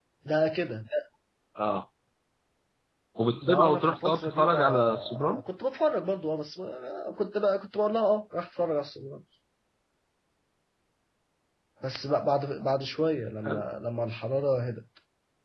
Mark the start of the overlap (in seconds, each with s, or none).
3.4 s